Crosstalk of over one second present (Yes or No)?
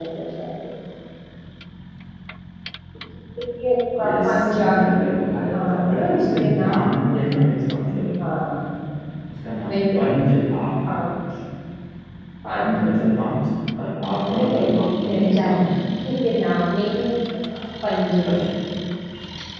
Yes